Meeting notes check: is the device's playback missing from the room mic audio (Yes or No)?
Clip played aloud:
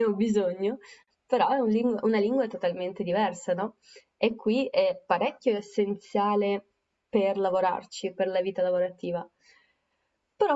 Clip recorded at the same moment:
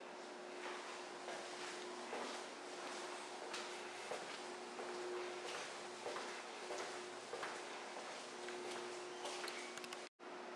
Yes